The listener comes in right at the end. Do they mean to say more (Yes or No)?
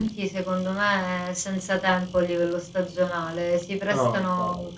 No